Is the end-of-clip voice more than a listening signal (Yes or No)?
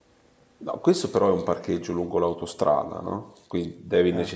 No